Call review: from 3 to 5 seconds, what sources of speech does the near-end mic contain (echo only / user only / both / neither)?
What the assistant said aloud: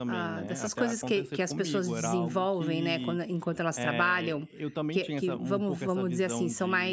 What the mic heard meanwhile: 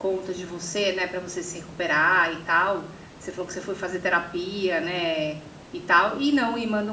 user only